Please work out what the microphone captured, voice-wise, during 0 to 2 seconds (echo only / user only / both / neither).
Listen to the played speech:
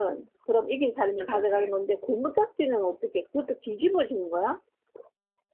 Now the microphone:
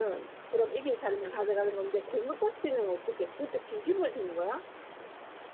echo only